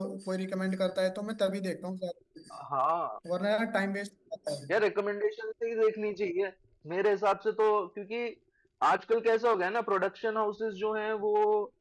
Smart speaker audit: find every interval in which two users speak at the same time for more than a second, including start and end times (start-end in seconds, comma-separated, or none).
none